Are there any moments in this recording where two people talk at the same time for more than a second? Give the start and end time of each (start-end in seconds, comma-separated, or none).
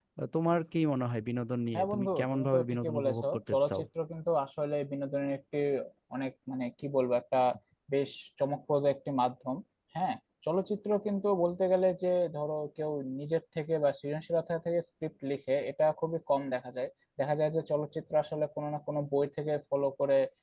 1.7-3.8